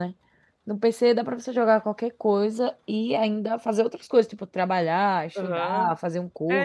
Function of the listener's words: taking over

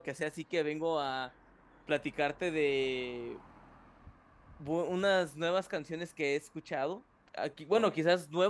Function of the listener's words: listening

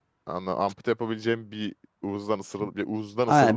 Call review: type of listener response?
taking over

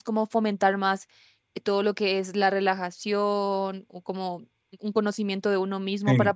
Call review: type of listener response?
listening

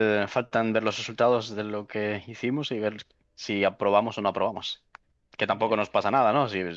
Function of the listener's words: listening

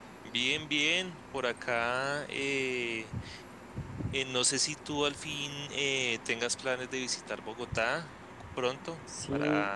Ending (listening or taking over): taking over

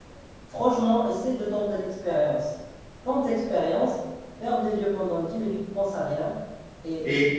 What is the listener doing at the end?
listening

